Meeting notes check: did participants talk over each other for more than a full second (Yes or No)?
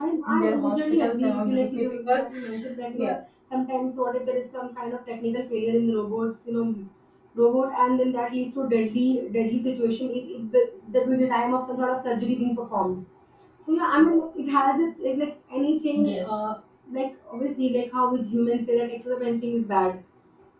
Yes